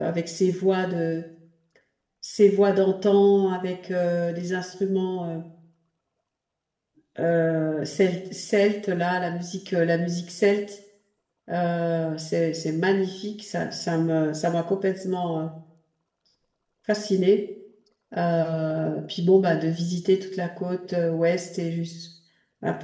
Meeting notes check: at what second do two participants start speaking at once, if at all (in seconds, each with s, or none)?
none